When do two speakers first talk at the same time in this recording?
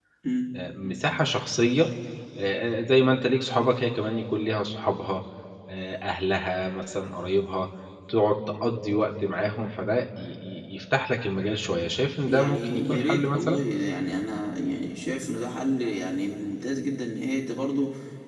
12.3 s

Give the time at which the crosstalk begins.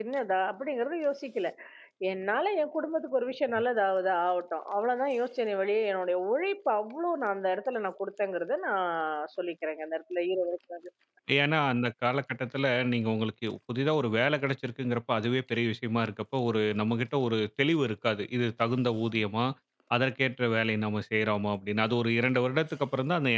none

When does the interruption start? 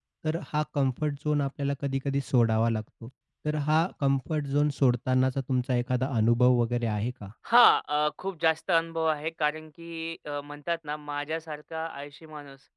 none

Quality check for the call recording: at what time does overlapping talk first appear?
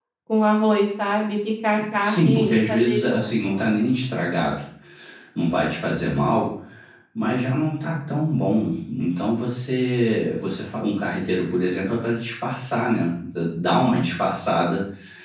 2.0 s

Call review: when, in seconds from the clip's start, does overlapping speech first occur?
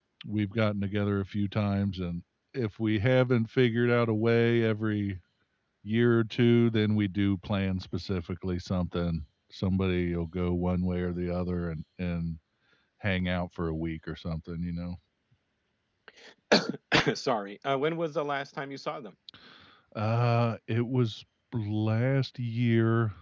none

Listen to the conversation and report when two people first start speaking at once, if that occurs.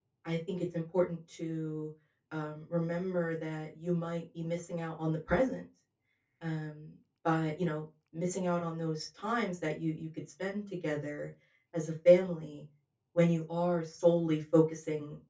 none

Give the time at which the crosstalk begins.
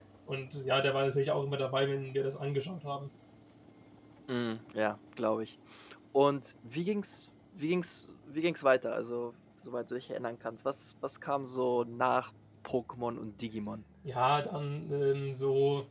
none

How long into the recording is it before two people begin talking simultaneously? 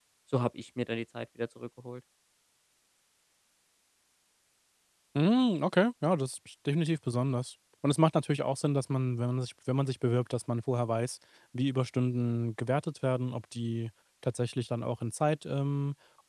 none

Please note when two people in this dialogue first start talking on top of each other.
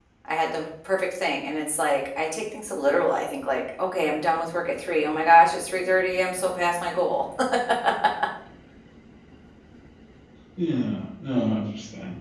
none

